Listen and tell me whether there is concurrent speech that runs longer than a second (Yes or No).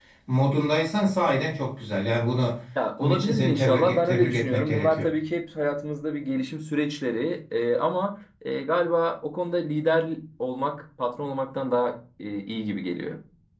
Yes